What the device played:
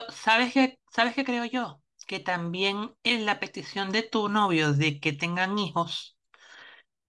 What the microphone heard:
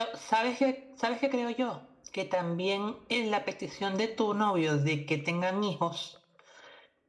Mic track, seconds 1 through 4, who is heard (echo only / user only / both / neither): echo only